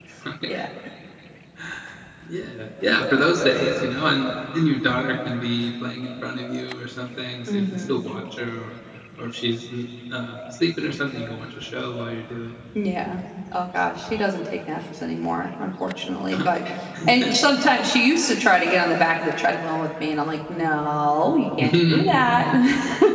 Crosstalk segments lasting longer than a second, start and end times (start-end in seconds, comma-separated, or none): none